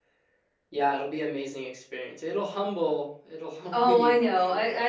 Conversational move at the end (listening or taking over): taking over